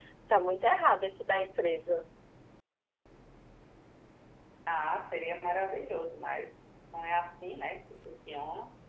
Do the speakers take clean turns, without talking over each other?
Yes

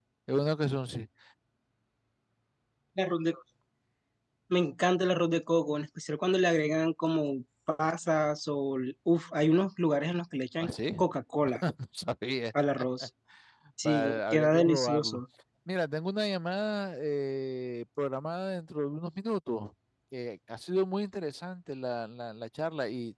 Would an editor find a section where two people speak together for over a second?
Yes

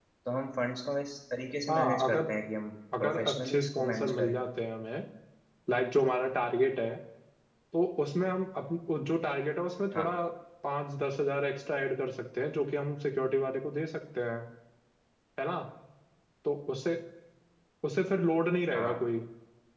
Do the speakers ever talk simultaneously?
Yes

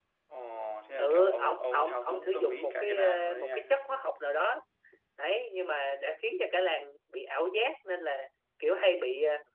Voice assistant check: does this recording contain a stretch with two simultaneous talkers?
Yes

